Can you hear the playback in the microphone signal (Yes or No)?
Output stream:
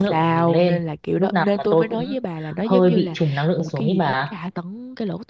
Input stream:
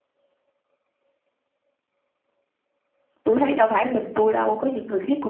No